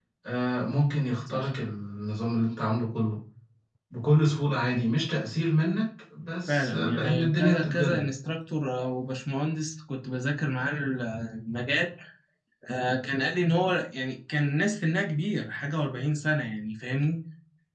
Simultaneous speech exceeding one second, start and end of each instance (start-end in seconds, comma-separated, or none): 6.5-8.1